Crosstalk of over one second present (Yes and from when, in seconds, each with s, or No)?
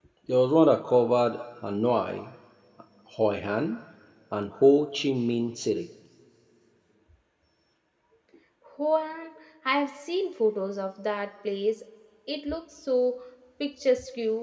No